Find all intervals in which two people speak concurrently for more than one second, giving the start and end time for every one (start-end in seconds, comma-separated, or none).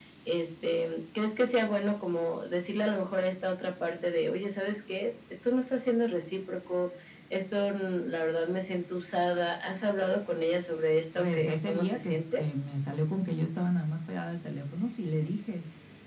11.2-12.4